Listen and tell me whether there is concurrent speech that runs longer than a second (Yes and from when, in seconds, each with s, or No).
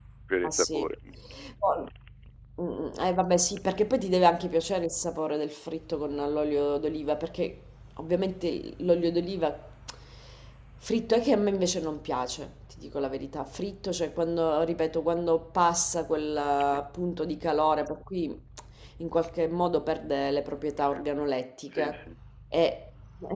No